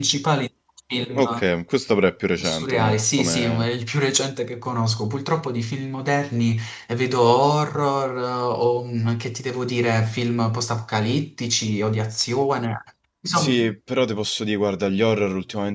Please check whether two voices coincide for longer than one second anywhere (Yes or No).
Yes